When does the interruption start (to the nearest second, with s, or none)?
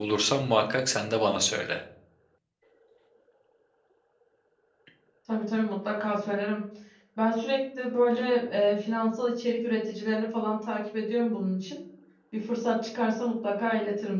none